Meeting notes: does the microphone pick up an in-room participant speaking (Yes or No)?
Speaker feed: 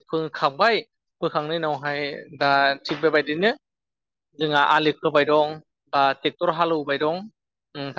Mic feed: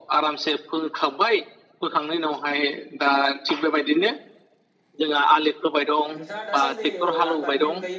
Yes